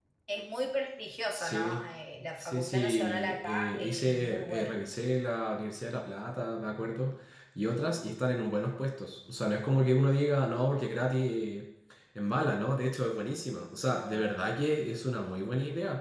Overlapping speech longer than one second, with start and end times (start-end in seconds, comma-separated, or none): 2.4-4.7